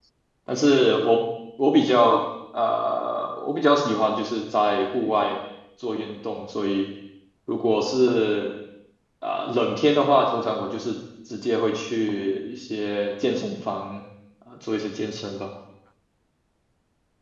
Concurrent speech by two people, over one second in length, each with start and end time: none

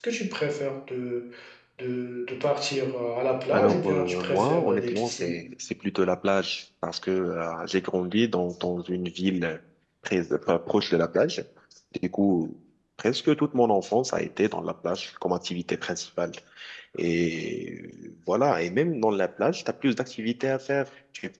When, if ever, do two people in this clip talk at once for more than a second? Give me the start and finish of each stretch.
3.5-5.3

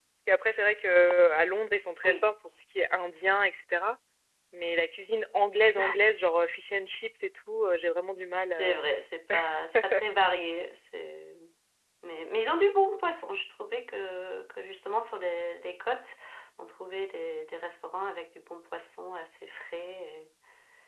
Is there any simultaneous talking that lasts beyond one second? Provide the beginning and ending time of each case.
none

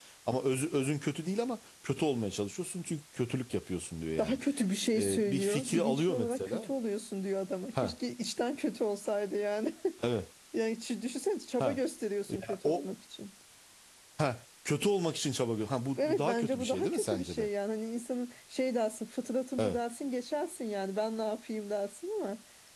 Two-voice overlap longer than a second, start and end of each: 4.9-6.7, 16.0-17.5

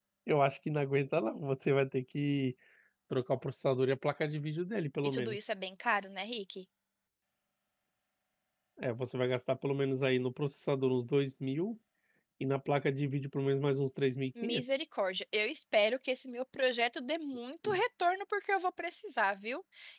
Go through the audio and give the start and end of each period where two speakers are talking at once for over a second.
none

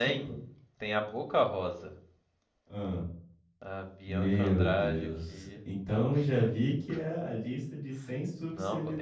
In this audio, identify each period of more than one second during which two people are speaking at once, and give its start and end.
4.1-5.5

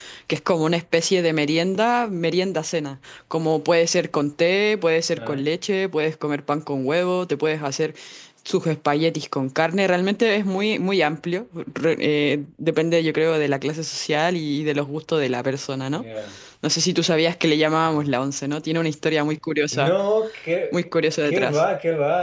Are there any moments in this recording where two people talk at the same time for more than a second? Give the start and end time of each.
none

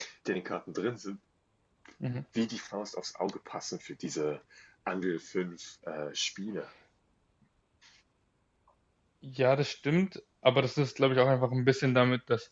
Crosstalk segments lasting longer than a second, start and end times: none

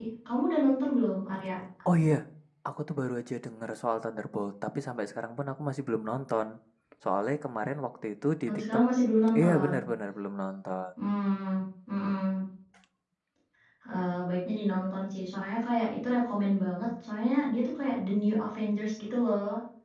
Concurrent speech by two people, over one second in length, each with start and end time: none

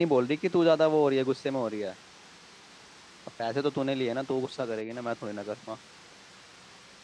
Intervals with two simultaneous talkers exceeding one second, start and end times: none

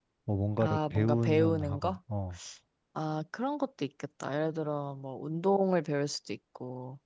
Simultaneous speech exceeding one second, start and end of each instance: 0.6-2.0

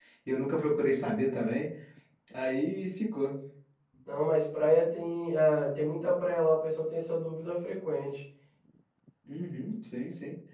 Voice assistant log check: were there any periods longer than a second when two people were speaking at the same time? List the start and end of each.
none

